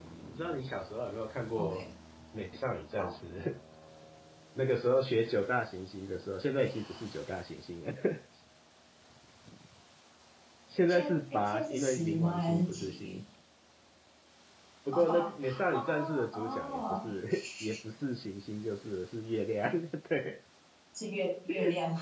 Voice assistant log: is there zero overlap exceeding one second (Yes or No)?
No